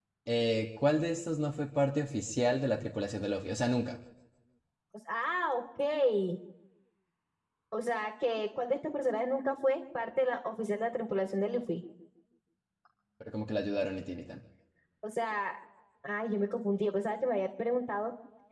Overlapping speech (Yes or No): No